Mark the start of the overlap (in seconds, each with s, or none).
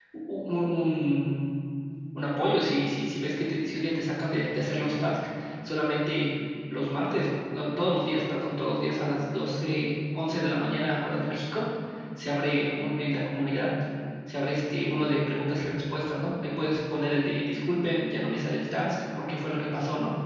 none